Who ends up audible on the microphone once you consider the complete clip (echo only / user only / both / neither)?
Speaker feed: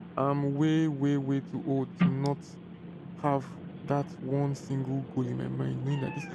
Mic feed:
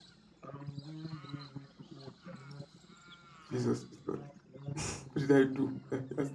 both